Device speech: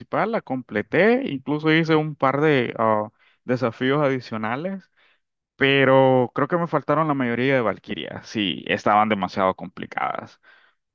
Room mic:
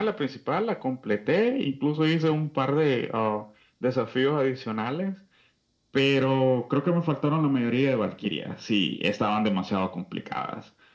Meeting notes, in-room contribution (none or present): none